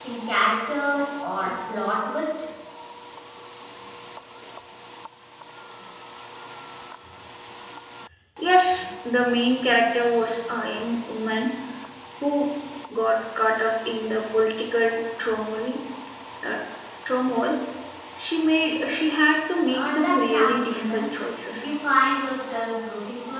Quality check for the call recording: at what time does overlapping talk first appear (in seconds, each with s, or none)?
19.7 s